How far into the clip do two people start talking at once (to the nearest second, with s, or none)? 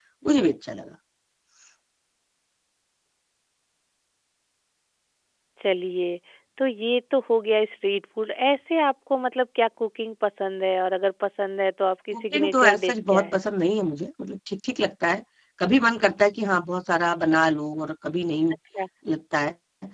12 s